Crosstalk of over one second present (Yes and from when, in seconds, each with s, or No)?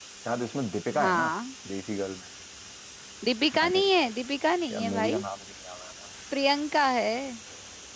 No